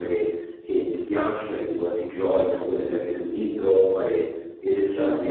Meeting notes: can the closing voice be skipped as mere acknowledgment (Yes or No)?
Yes